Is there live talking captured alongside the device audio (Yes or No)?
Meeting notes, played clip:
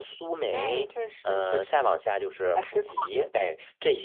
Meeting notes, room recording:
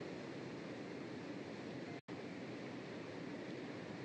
No